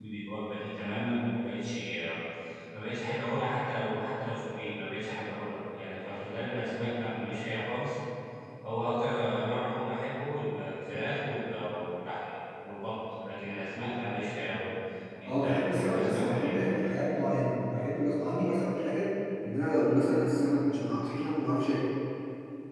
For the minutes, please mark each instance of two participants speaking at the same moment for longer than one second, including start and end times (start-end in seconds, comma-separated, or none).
15.2-16.5